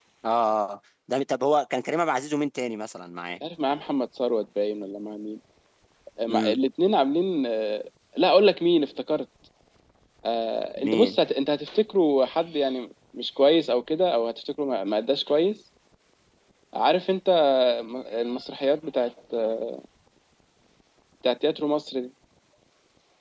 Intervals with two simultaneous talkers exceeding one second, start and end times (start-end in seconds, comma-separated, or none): none